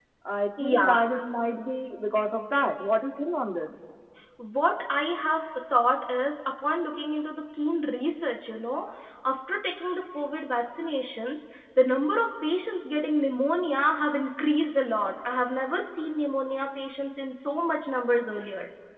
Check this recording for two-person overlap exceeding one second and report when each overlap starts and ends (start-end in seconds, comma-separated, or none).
none